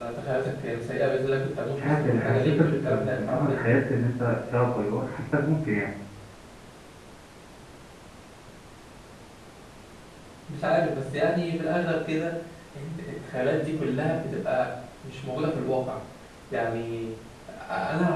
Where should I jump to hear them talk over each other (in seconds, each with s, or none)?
1.8 s